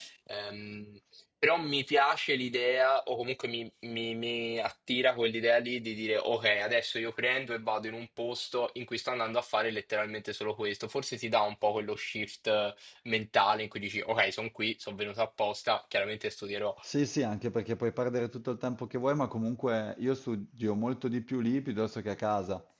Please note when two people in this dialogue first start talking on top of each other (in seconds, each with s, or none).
none